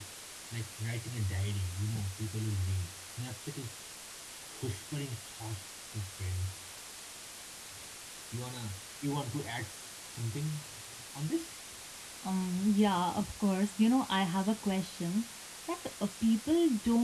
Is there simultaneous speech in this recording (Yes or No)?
No